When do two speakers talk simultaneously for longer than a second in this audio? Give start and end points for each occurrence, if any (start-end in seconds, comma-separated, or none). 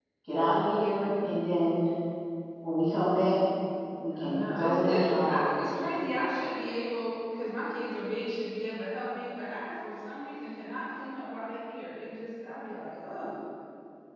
4.1-5.5